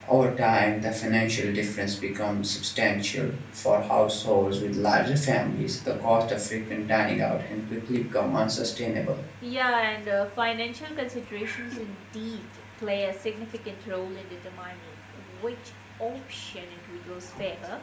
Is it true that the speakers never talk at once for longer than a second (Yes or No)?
Yes